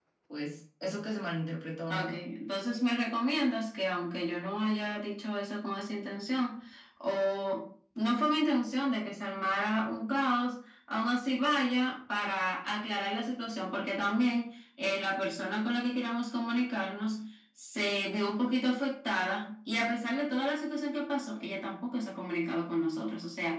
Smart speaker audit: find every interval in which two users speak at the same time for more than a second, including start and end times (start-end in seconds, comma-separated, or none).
none